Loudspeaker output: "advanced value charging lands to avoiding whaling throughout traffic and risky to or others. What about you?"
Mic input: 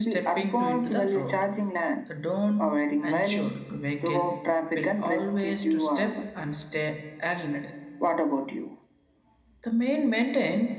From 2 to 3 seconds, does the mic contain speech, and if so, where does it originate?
both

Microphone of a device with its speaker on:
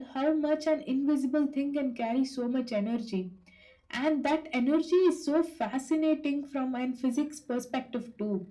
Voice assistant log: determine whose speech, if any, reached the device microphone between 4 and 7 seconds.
echo only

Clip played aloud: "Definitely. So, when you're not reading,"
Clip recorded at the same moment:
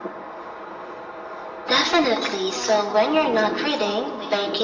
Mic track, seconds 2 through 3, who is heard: both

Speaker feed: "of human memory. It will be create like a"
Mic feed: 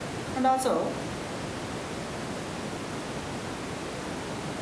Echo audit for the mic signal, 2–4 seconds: neither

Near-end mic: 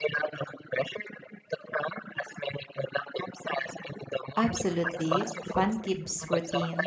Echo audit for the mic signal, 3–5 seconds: both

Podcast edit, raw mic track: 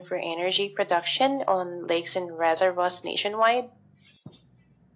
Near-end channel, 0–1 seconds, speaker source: echo only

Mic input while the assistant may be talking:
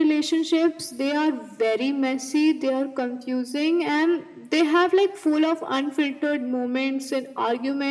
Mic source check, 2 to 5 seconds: echo only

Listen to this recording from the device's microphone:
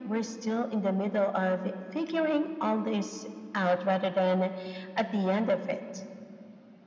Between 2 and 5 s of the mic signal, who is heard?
echo only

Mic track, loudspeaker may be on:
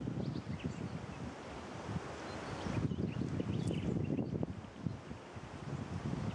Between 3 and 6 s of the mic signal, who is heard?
neither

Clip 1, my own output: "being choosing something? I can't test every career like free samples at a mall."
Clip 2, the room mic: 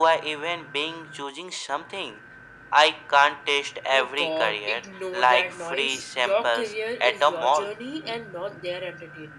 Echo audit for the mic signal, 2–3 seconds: echo only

